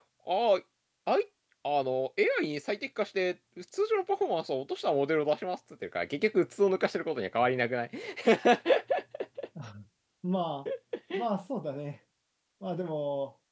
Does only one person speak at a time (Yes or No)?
Yes